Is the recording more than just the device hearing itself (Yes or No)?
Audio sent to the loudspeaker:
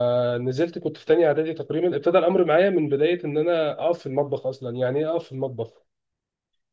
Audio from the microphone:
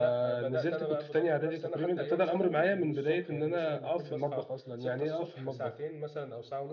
Yes